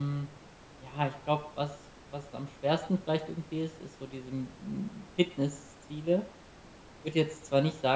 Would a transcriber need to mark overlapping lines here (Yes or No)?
No